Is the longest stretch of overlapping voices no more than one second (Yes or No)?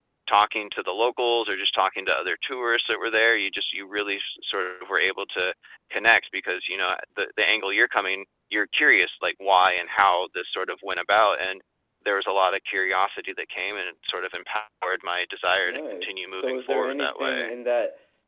No